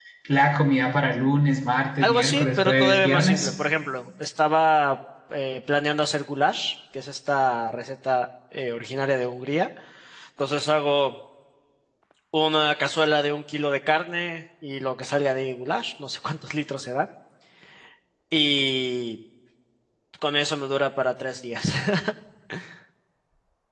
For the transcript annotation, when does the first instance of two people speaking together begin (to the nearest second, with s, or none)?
2 s